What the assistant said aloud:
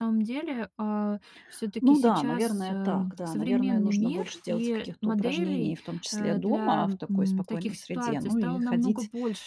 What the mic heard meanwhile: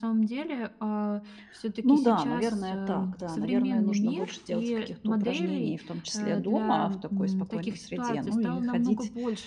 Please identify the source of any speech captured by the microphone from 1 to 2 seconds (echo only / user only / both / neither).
echo only